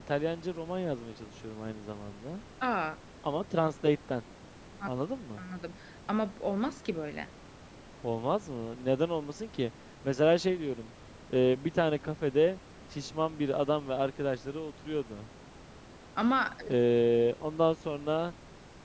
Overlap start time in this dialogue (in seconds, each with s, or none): none